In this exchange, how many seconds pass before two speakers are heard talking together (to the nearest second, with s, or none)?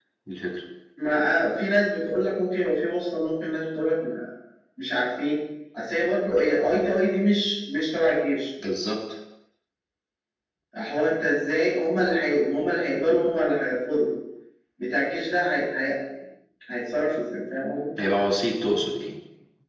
none